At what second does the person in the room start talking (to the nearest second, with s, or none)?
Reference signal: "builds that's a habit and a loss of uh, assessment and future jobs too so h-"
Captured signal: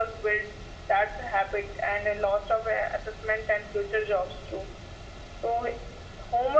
none